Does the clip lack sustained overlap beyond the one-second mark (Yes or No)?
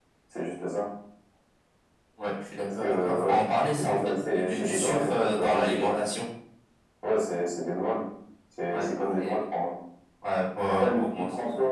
No